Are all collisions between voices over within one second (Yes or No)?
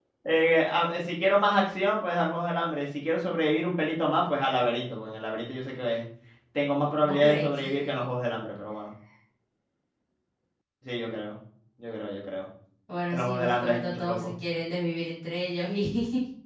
No